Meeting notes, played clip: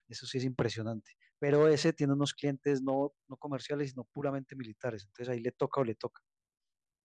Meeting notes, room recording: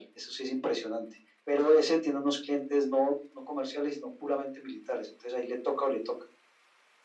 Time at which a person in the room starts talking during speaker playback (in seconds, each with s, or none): none